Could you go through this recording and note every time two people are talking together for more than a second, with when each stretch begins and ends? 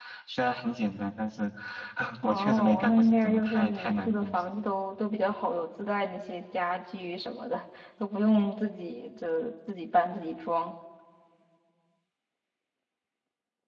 2.2-4.5

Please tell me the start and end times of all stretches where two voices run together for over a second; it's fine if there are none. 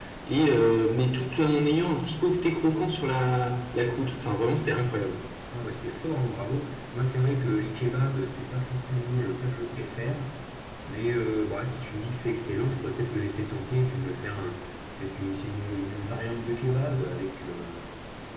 none

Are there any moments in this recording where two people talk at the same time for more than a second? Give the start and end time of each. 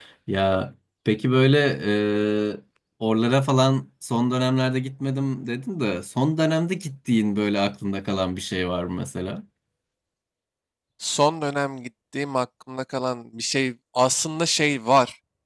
none

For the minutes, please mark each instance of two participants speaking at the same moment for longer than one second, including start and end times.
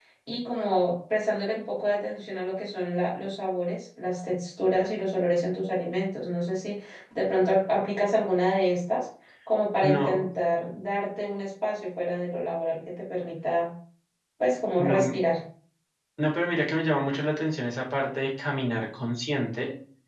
none

